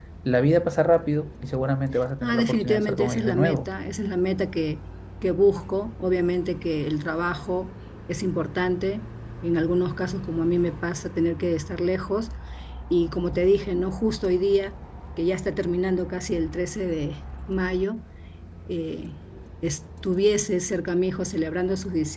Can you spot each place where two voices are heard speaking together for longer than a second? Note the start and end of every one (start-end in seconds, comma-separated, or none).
2.2-3.7